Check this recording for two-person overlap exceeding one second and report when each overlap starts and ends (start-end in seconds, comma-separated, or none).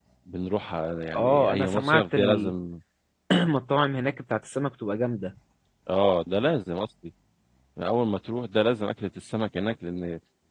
1.1-2.5